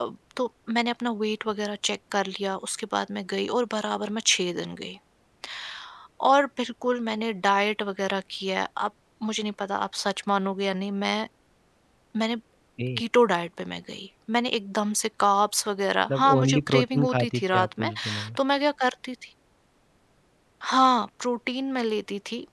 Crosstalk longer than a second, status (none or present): present